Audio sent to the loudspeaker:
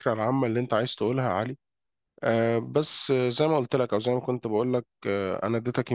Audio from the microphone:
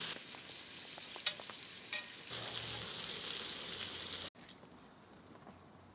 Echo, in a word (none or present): none